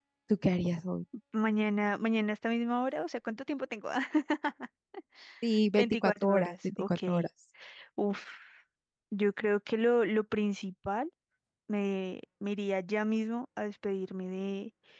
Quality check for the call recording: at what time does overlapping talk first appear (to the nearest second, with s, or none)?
6 s